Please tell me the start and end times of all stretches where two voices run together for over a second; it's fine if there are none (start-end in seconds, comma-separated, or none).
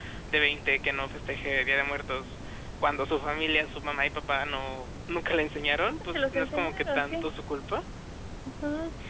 6.0-7.2